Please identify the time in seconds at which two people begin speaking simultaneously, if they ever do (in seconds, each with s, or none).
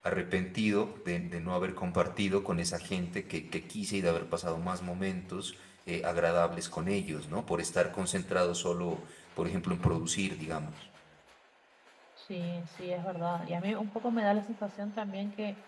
none